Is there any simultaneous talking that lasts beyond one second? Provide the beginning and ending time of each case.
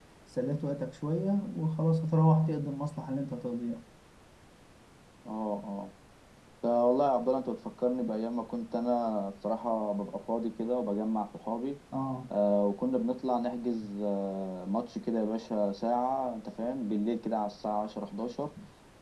none

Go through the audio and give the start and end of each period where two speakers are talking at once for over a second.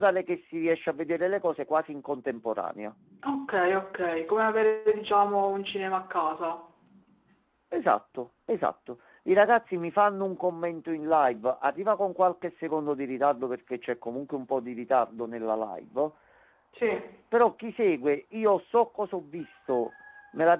none

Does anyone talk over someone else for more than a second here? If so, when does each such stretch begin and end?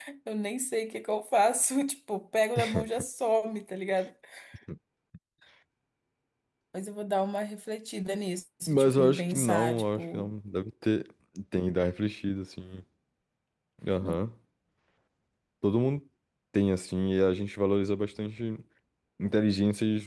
8.7-10.3

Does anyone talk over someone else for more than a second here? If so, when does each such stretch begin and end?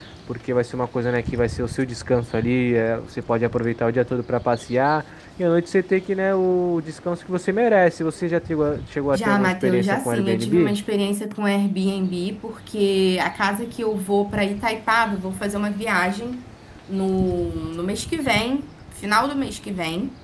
9.1-10.8

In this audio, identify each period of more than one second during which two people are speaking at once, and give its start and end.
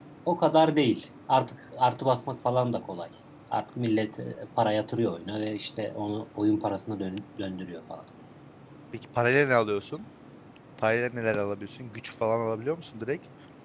none

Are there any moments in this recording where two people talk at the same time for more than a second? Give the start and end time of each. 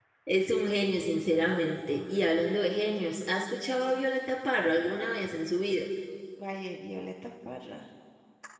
none

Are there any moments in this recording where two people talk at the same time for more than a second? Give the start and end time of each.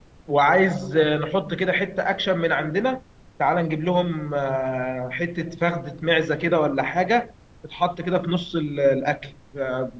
none

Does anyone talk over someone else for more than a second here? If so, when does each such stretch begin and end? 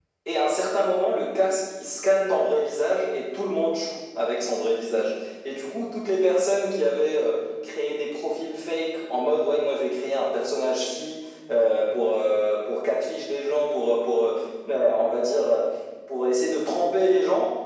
none

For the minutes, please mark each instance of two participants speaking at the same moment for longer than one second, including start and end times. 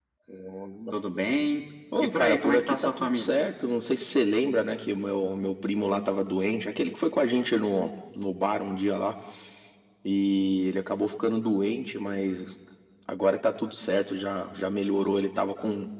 2.0-3.4

